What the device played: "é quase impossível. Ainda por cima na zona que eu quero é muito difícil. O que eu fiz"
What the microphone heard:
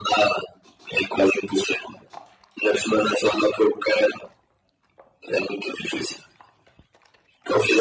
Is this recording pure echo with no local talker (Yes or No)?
Yes